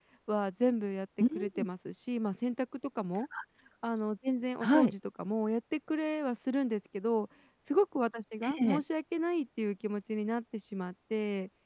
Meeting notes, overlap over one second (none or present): none